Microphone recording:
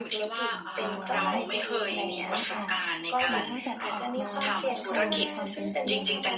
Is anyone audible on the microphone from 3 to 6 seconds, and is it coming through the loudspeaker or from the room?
both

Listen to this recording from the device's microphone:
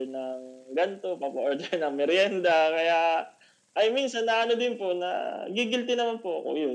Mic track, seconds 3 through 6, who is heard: echo only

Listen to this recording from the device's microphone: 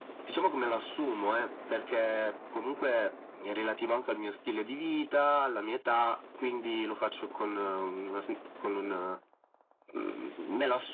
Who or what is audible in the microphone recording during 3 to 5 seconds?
echo only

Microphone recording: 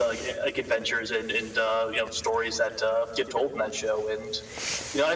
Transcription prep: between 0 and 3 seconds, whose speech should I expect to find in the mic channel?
echo only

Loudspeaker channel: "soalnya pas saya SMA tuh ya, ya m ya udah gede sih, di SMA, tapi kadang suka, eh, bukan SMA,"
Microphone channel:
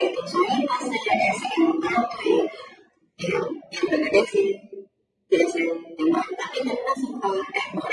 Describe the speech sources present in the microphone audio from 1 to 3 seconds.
echo only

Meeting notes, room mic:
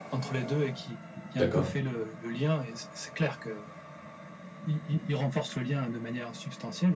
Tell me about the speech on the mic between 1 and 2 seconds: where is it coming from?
both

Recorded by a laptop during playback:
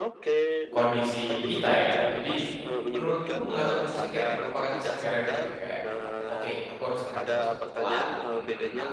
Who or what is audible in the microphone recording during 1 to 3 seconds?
both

